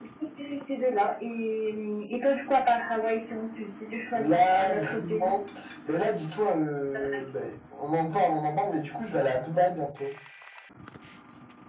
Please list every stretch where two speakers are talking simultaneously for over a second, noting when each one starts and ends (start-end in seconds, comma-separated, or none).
4.1-5.3